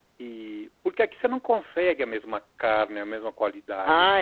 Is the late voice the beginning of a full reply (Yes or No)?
Yes